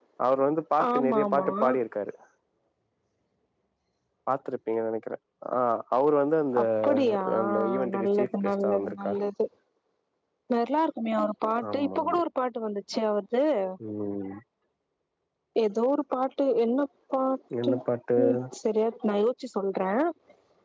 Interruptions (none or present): present